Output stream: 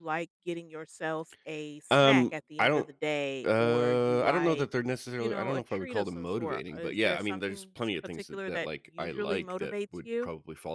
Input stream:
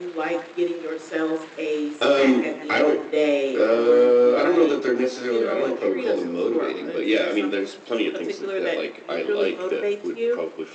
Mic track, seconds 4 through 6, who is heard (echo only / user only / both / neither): echo only